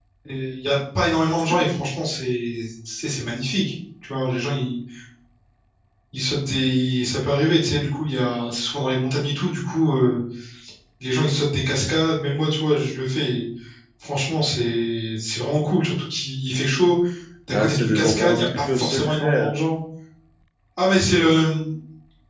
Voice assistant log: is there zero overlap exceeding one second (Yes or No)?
No